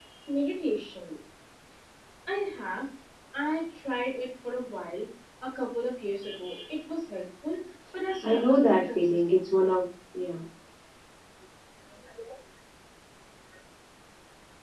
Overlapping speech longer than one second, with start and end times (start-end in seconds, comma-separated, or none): 8.2-9.7